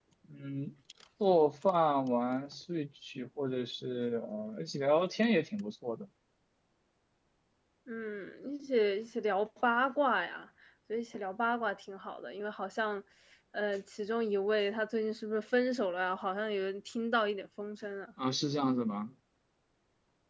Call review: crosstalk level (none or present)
none